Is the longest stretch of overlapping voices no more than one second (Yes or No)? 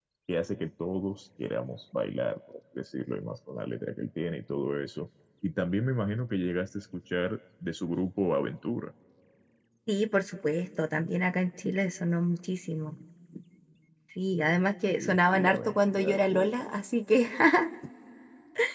No